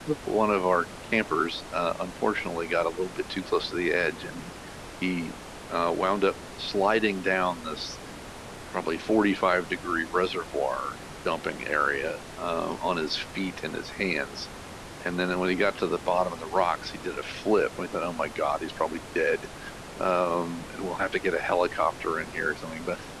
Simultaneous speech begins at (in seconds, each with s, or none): none